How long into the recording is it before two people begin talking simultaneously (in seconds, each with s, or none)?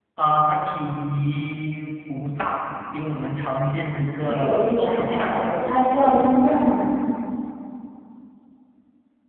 4.2 s